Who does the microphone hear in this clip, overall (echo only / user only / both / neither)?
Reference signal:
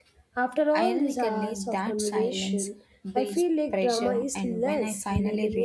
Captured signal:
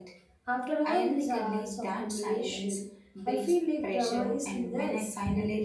echo only